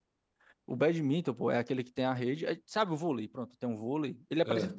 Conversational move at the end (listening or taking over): listening